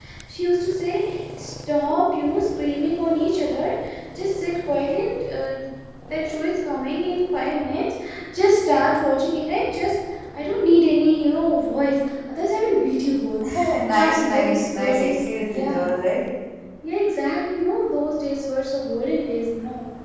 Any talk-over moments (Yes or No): Yes